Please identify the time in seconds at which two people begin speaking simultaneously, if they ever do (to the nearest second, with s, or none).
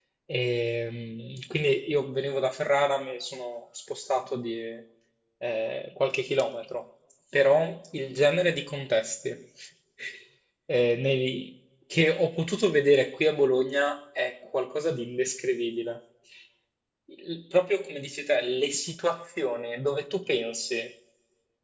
none